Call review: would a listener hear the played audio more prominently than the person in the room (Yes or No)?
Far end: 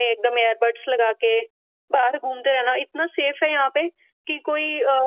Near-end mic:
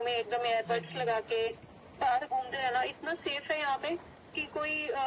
Yes